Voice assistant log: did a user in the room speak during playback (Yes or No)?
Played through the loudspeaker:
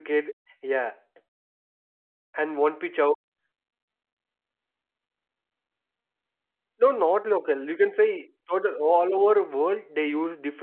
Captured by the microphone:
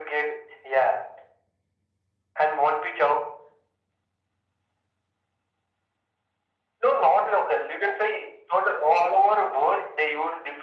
No